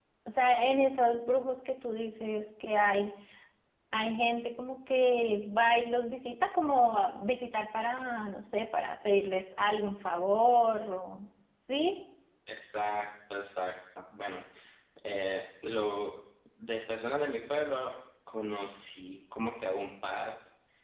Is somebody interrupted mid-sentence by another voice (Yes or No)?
No